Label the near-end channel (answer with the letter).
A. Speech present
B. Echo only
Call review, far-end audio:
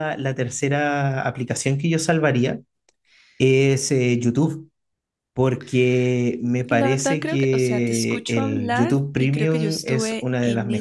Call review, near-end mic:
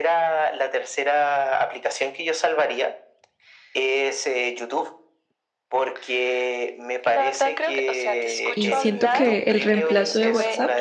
A